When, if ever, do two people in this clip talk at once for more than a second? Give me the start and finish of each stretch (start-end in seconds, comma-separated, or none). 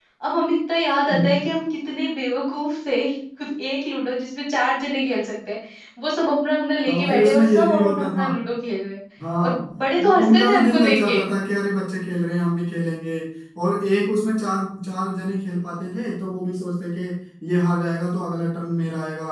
6.9-8.2, 10.0-11.2